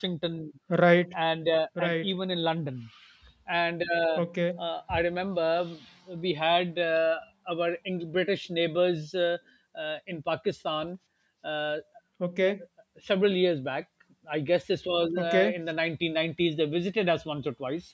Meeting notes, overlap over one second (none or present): none